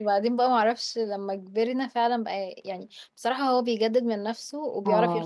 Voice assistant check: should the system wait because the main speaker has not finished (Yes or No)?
No